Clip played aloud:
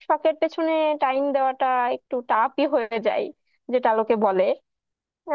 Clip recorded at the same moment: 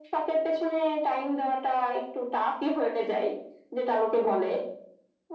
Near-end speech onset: none

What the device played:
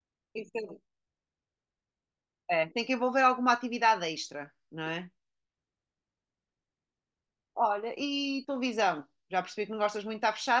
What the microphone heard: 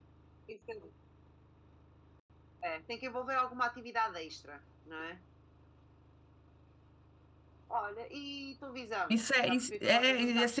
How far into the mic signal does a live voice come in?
9.1 s

